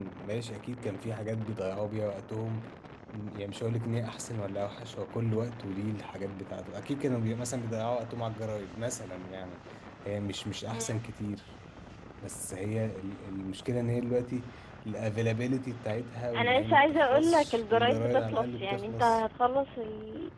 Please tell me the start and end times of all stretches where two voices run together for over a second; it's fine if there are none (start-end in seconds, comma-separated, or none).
16.4-19.2